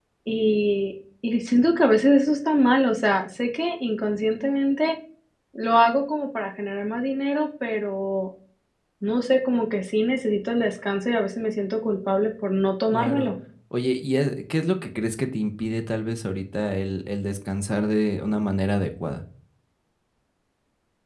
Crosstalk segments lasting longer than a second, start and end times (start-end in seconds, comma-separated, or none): none